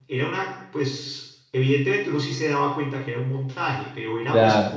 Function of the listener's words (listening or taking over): listening